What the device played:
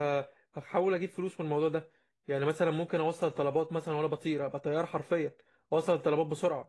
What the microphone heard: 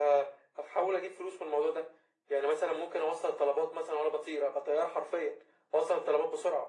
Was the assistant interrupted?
No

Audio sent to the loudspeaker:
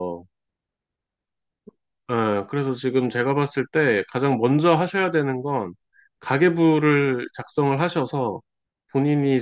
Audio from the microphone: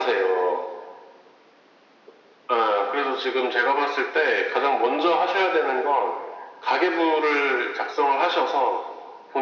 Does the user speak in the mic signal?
No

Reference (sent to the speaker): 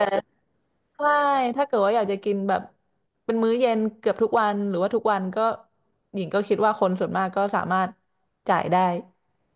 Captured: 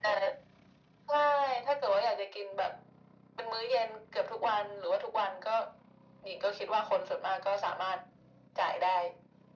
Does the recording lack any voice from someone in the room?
Yes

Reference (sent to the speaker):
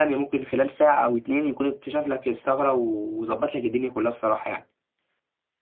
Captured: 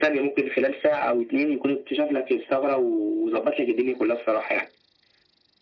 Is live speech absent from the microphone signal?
Yes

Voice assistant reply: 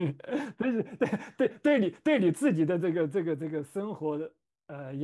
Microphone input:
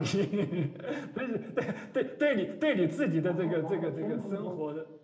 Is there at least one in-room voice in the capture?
Yes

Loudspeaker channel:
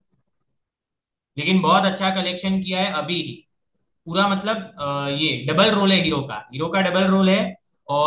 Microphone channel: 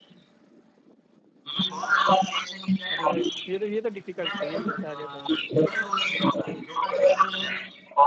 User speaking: Yes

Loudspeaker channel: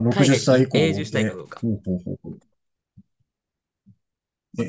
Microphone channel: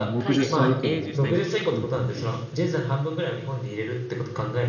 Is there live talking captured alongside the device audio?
Yes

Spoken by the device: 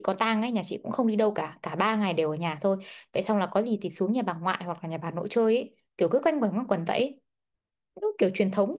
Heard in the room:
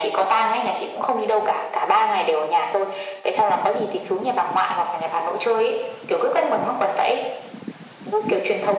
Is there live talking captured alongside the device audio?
No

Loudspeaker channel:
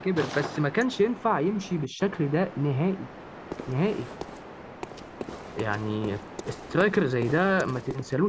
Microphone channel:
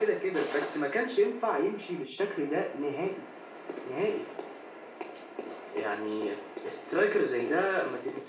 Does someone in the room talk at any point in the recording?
No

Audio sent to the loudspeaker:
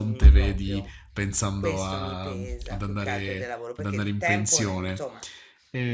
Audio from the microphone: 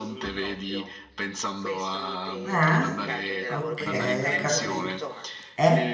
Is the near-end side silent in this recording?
No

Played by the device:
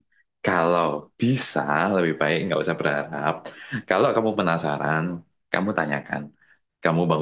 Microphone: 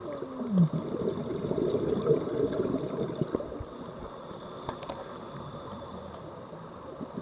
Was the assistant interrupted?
No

